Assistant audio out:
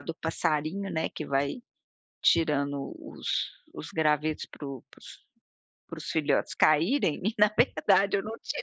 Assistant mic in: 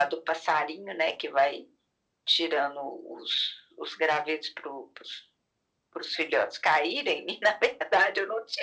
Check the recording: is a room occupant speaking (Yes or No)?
No